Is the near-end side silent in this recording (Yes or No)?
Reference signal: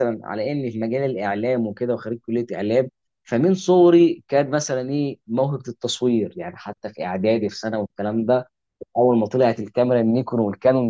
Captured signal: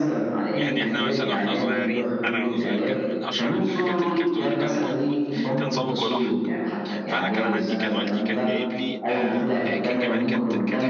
No